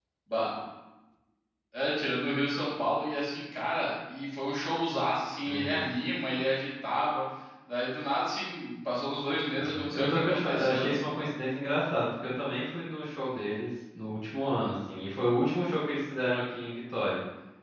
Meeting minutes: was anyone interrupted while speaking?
Yes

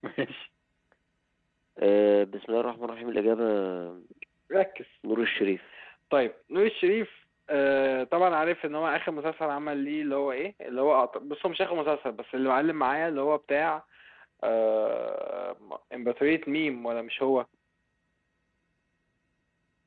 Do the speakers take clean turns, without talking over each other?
Yes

